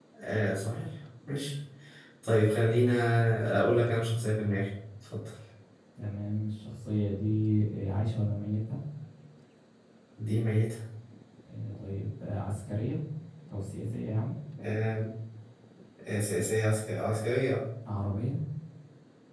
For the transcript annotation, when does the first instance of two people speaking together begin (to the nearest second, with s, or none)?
none